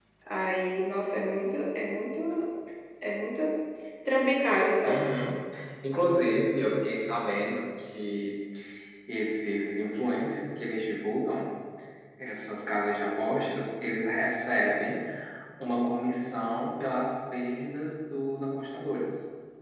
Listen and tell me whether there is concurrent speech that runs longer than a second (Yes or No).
No